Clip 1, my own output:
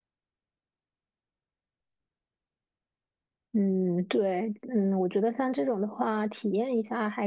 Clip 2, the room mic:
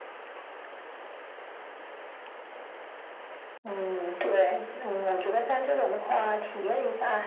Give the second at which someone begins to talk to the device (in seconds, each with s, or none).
none